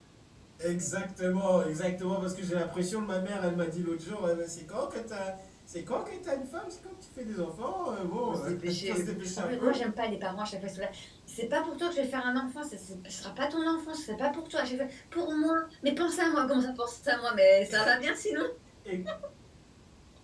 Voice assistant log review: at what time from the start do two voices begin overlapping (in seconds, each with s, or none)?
8.3 s